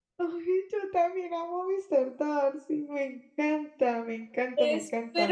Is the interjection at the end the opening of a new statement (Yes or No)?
Yes